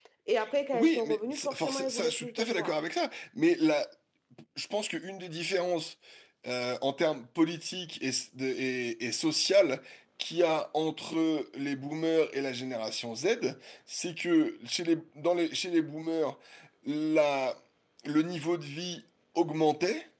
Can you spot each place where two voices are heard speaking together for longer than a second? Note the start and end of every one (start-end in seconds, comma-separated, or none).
0.7-2.7